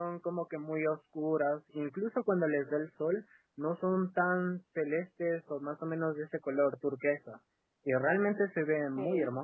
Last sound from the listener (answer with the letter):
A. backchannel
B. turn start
B